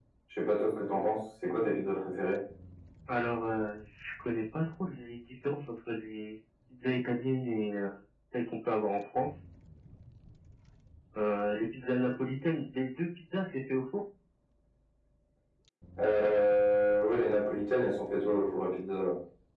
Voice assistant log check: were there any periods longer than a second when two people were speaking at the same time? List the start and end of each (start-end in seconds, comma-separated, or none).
none